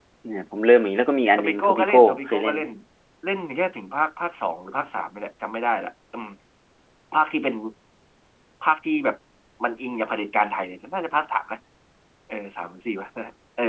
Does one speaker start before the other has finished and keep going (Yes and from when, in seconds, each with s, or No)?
Yes, from 1.4 s